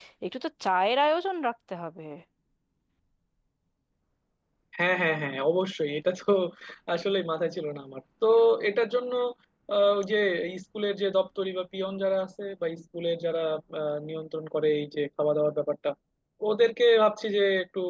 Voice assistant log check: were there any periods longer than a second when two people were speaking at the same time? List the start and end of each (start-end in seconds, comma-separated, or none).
none